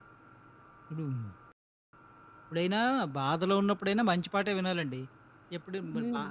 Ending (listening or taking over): listening